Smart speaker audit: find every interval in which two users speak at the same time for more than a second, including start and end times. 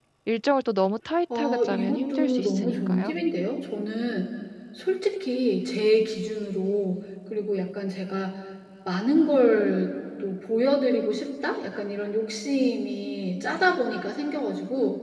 1.4-3.1

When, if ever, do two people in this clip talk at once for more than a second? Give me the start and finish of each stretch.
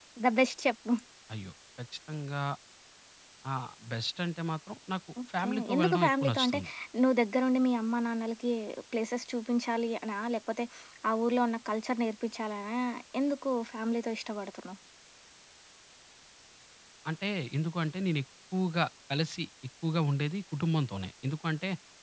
5.4-6.6

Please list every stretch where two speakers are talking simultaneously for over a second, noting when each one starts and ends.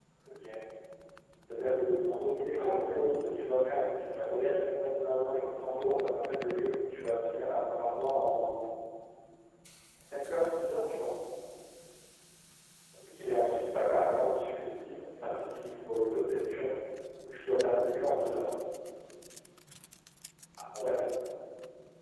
none

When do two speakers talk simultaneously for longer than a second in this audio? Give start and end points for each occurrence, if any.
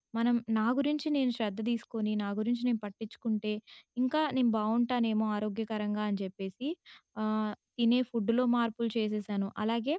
none

